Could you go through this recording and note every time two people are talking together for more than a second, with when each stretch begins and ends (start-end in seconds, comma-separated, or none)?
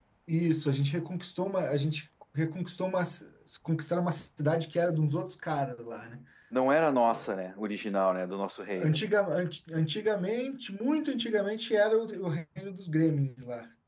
none